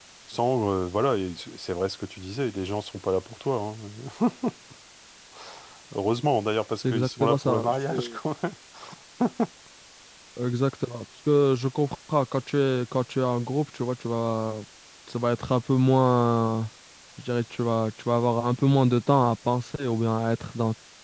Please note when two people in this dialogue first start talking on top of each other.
7 s

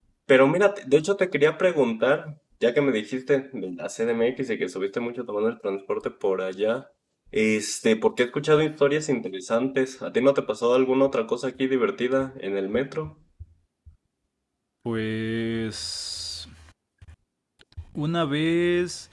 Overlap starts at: none

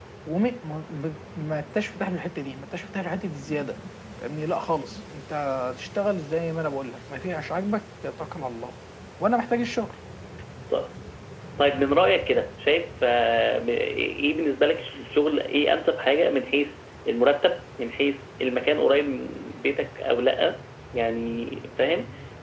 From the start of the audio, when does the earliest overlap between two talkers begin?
none

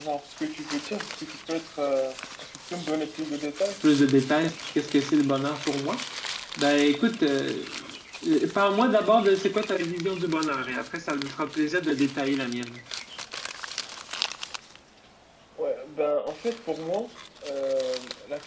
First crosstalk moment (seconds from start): none

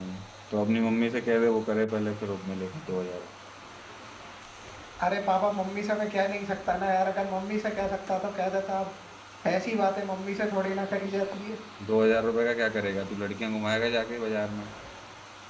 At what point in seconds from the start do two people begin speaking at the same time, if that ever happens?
none

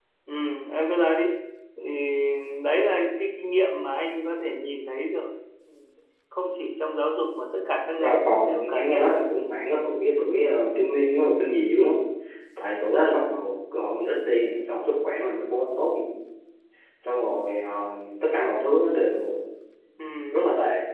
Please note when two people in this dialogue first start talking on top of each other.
8 s

